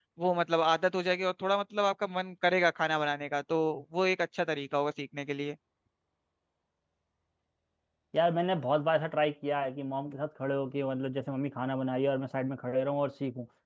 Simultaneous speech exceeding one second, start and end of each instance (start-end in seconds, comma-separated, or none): none